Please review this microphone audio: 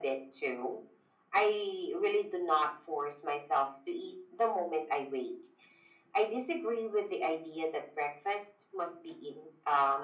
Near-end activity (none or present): none